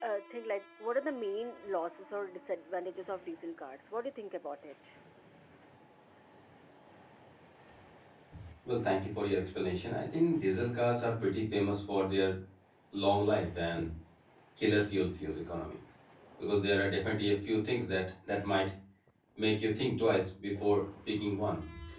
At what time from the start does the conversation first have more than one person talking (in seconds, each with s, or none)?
none